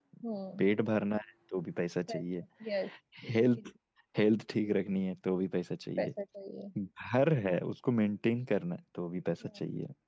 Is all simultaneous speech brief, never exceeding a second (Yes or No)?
Yes